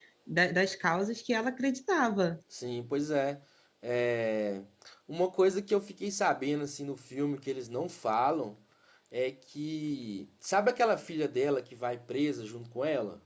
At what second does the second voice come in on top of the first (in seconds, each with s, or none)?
none